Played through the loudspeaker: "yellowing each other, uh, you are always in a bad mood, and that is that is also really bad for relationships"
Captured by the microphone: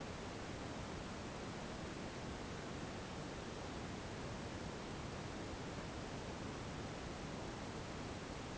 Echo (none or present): none